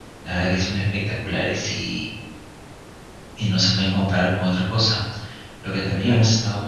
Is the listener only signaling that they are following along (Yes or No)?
Yes